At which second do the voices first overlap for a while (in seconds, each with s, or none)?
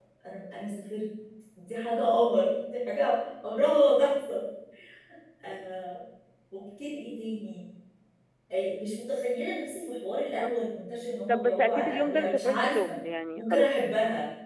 11.3 s